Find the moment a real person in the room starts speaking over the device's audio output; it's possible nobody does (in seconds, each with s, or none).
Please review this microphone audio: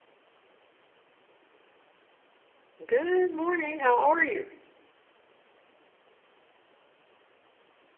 2.9 s